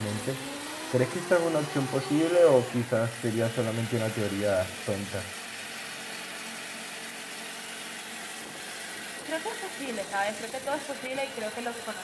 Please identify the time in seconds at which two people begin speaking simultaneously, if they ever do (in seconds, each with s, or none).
none